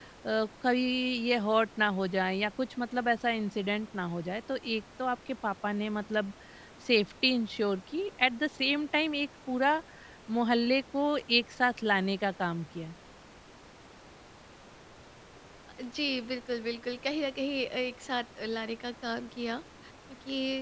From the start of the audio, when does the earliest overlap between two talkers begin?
none

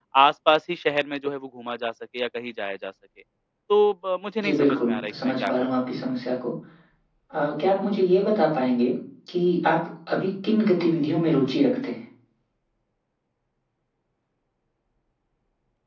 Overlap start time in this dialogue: 4 s

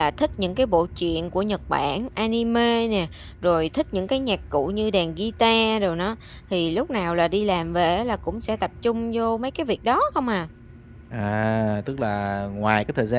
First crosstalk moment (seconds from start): none

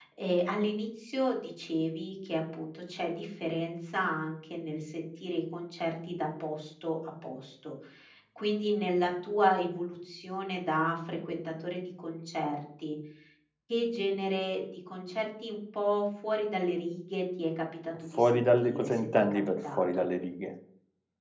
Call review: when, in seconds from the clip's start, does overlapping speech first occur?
18 s

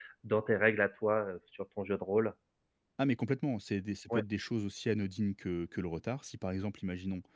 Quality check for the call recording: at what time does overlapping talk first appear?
none

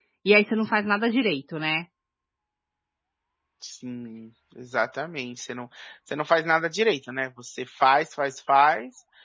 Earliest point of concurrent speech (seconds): none

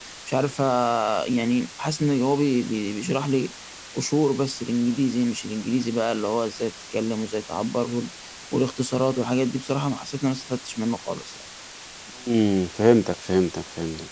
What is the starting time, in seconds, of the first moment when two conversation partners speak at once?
none

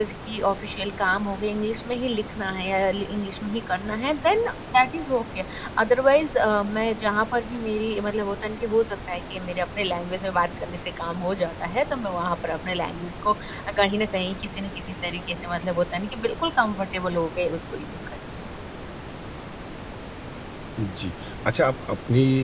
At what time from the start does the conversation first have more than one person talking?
none

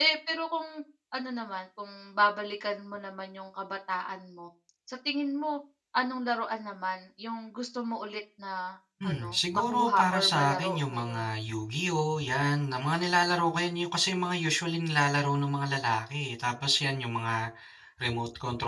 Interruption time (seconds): 9 s

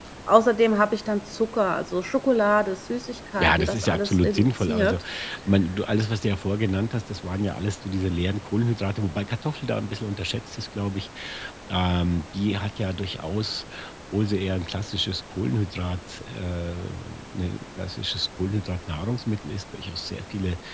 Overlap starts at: 3 s

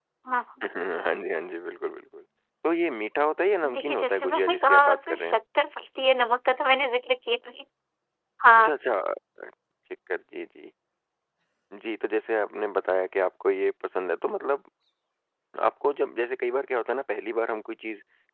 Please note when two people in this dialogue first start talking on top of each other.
4 s

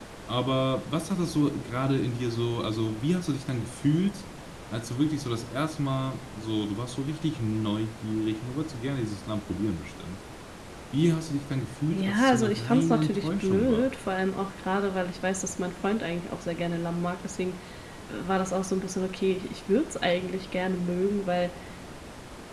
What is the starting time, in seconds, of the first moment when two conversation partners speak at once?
12 s

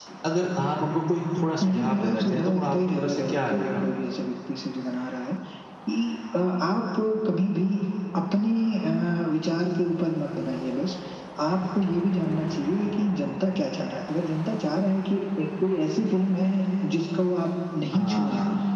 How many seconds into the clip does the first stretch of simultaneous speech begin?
2 s

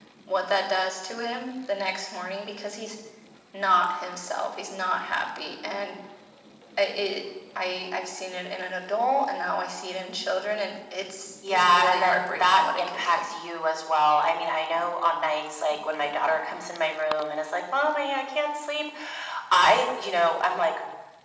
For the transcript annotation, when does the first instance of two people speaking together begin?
11 s

